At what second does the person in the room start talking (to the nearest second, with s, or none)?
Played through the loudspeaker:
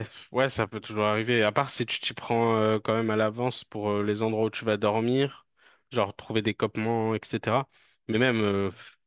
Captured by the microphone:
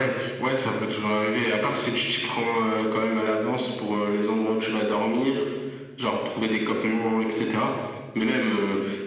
none